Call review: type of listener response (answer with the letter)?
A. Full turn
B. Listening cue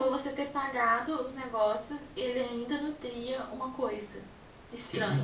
A